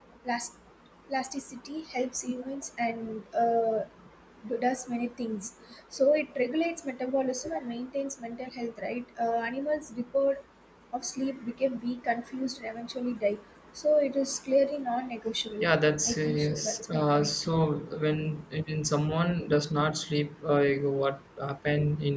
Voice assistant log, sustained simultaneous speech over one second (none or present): present